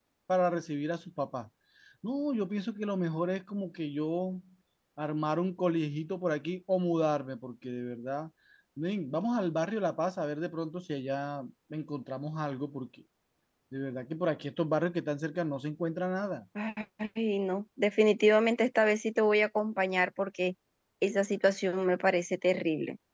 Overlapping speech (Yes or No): No